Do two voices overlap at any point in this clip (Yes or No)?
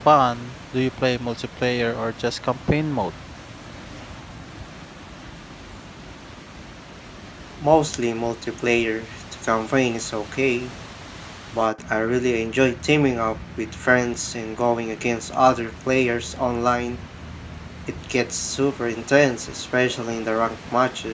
No